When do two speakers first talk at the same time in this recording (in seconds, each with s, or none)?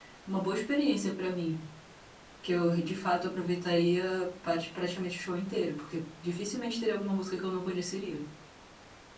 none